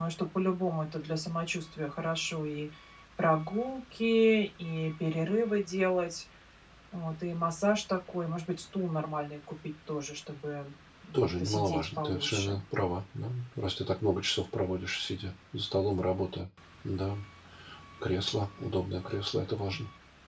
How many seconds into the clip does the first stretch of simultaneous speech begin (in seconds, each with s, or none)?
11.1 s